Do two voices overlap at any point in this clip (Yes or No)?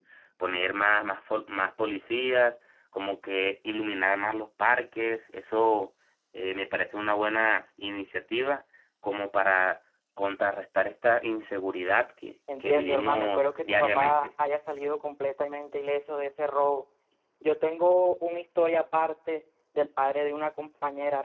Yes